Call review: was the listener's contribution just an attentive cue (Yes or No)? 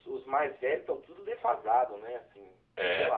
No